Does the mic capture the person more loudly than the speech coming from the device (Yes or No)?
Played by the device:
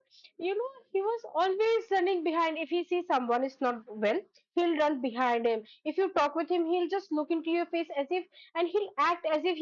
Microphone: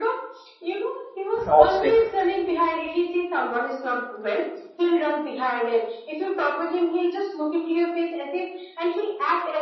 Yes